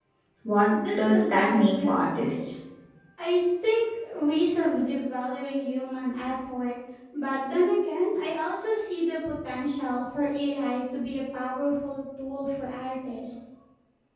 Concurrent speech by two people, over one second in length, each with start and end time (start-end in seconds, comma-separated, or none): 1.0-2.3